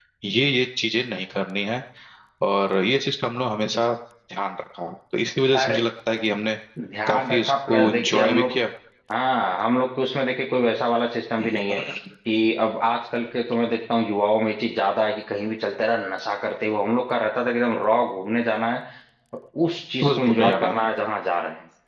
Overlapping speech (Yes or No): Yes